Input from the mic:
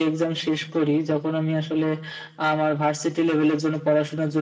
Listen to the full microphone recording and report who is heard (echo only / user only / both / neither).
echo only